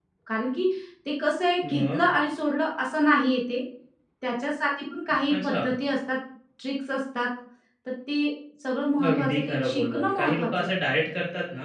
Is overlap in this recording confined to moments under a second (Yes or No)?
No